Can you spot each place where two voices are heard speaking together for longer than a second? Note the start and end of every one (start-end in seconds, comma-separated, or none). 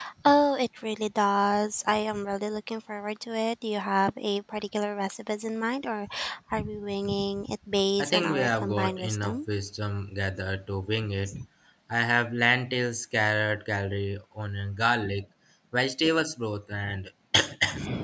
8.0-9.4